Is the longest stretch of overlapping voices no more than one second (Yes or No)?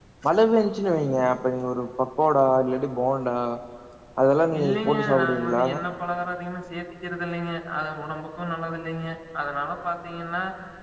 No